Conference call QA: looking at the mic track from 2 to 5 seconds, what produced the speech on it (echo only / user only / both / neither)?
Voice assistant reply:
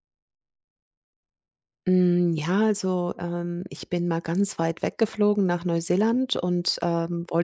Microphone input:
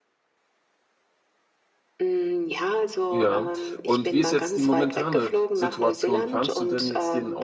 both